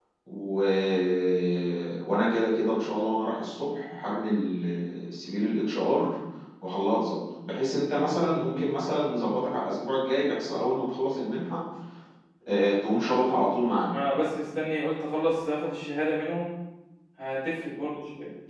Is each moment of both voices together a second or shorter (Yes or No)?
Yes